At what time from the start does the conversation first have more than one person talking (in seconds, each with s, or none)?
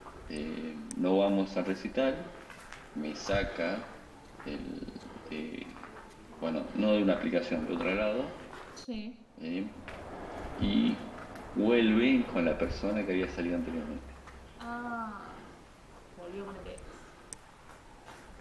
none